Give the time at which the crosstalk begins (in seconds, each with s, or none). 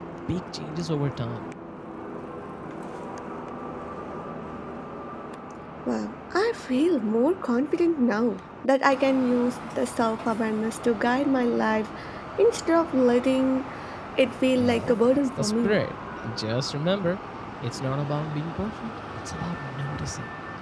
14.6 s